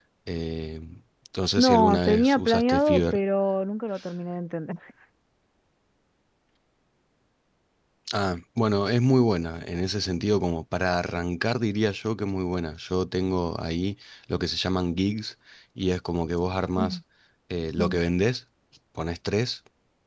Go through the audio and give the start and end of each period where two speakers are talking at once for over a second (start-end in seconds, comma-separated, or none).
1.6-3.2